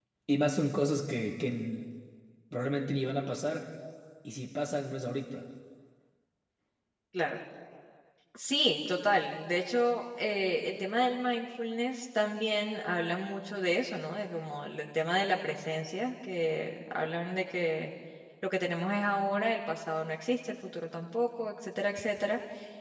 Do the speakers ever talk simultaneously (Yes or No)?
No